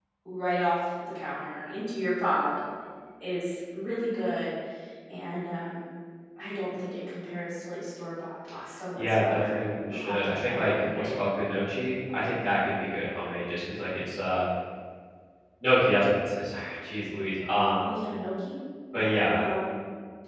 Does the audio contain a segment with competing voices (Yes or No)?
Yes